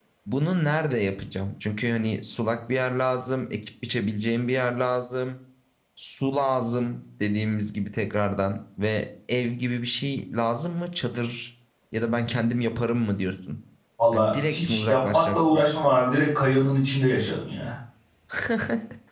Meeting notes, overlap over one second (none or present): present